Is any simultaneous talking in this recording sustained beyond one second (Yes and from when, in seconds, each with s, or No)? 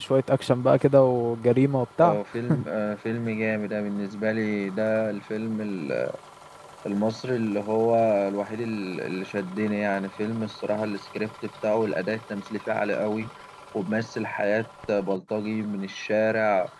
No